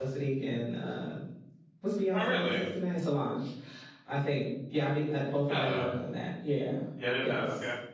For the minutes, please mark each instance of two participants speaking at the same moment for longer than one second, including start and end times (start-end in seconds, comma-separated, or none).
none